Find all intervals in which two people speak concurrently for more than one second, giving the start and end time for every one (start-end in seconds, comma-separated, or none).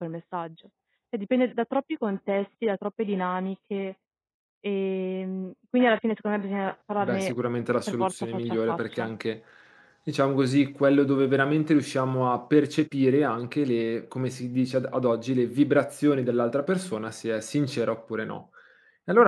7.9-9.1